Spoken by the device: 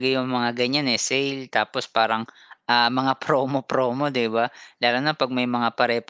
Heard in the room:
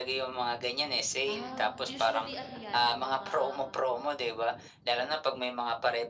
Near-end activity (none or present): present